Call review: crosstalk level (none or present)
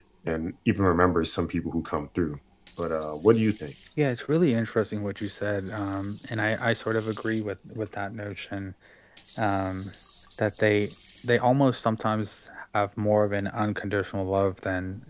none